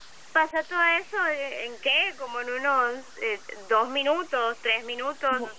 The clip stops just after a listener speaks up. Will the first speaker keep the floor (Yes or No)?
No